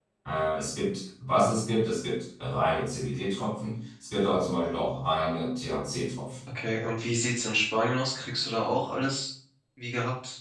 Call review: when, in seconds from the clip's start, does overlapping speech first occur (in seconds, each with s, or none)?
none